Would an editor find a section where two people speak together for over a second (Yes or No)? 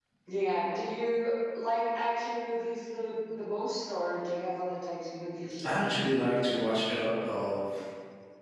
No